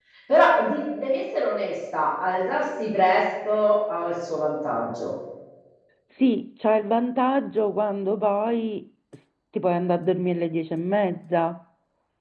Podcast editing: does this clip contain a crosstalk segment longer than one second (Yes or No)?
No